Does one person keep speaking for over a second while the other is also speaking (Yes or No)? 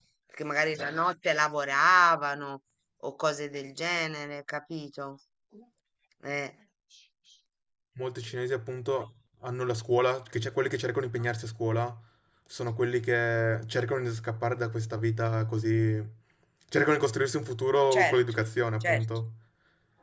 No